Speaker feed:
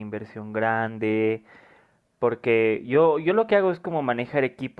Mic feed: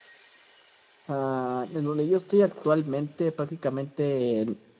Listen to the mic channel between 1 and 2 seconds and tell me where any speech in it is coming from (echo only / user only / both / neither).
user only